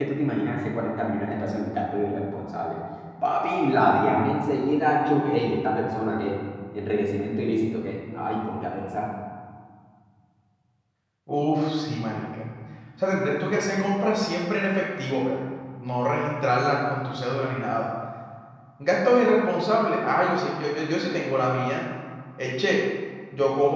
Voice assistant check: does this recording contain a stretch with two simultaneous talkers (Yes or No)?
No